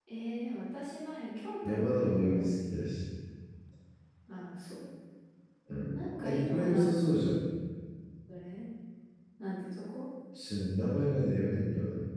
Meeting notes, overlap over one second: present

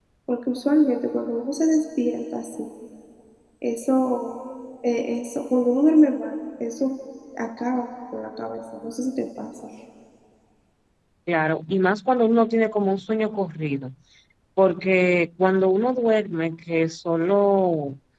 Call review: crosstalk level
none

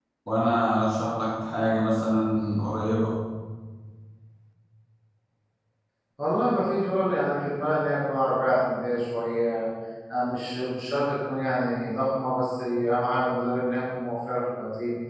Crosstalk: none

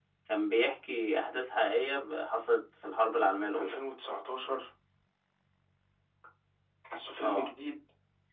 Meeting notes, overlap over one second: none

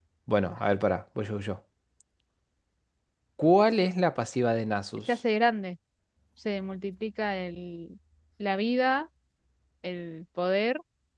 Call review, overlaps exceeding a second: none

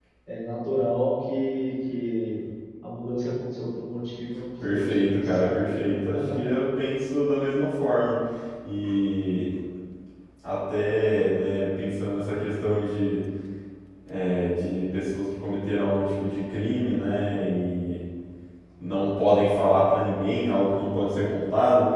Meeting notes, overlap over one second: present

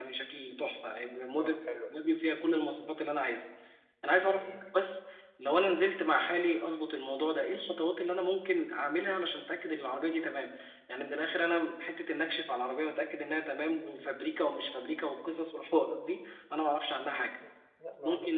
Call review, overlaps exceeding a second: none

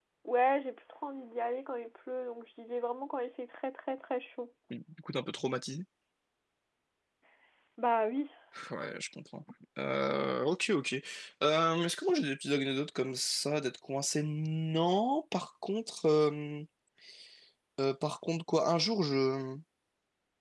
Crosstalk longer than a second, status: none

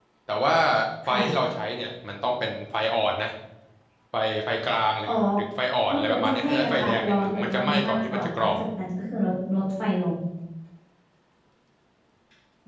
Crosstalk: present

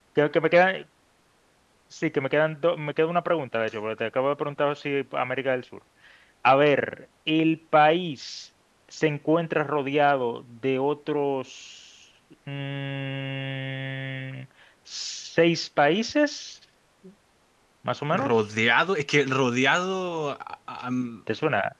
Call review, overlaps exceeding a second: none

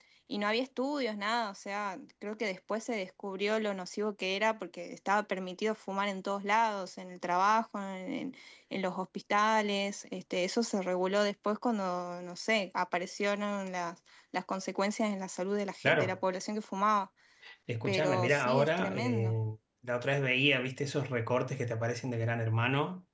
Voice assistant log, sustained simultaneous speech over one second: present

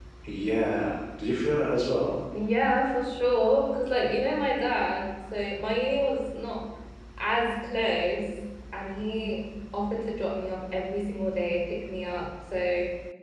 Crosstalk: none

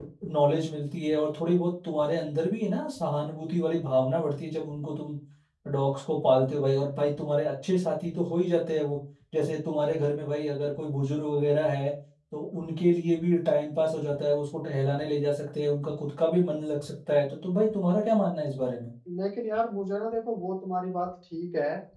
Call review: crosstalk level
none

